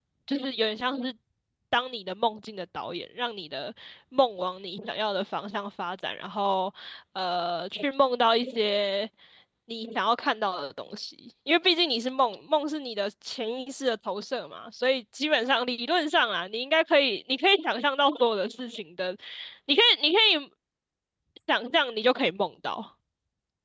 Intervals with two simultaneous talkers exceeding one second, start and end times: none

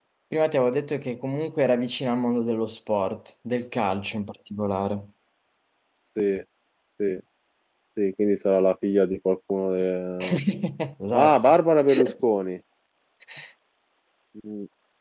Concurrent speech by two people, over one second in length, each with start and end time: none

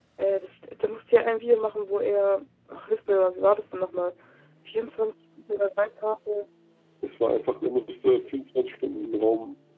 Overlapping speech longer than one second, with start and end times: none

